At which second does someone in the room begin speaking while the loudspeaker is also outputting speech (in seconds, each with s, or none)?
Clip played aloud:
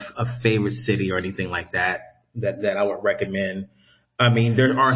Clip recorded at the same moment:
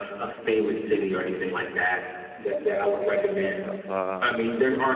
3.1 s